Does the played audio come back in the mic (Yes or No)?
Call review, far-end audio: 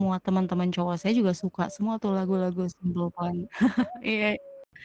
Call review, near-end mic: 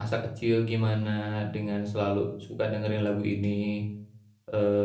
No